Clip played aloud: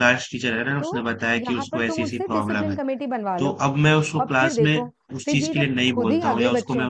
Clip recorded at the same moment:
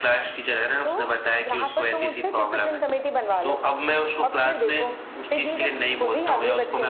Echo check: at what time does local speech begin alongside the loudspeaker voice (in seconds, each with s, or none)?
none